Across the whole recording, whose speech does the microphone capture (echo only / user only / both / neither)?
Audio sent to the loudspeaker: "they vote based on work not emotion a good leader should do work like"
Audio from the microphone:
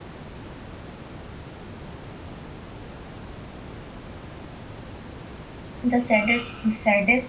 user only